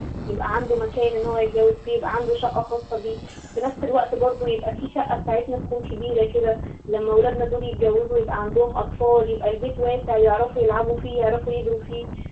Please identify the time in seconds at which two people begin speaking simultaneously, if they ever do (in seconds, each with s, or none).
none